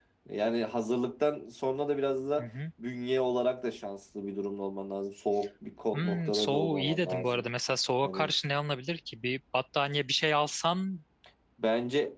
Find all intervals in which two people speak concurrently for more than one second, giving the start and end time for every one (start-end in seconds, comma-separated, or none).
5.9-7.5